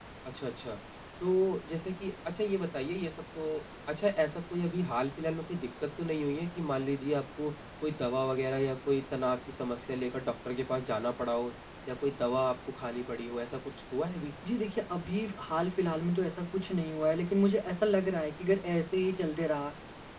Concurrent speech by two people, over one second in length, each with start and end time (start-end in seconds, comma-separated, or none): none